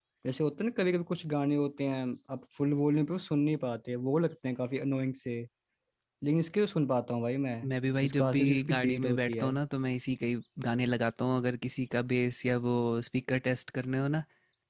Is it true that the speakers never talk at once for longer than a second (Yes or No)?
No